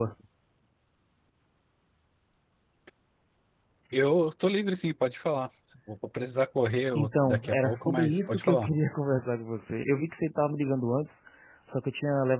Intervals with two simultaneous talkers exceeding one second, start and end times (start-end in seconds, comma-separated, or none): 7.0-8.7